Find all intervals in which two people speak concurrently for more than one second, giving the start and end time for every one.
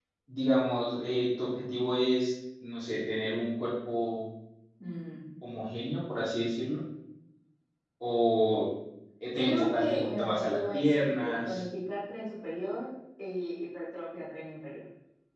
9.4-11.6

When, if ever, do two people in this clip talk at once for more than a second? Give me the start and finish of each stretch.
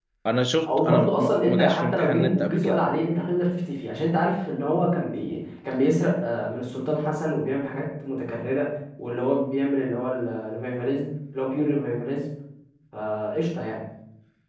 0.7-2.9

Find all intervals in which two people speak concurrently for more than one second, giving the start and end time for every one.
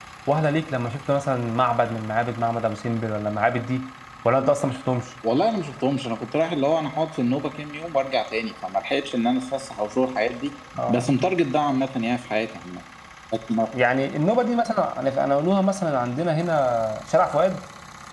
none

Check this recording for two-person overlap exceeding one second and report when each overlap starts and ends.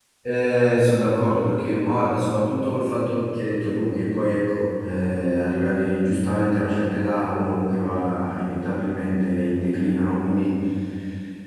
none

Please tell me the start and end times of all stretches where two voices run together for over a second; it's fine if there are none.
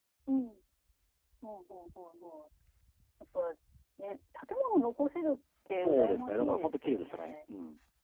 5.8-7.4

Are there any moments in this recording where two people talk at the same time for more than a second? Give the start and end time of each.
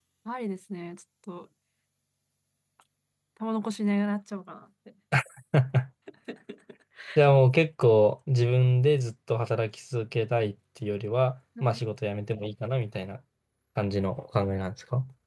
none

